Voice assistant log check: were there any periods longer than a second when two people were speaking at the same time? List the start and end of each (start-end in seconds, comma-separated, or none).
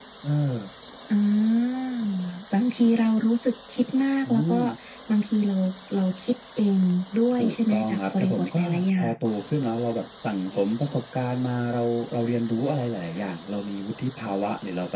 7.4-9.1